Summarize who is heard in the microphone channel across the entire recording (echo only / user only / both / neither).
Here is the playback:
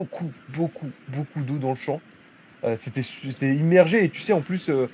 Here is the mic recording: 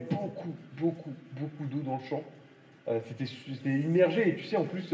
echo only